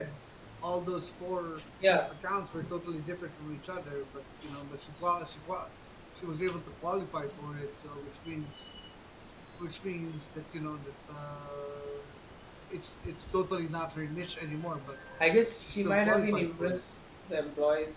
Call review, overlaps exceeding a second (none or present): present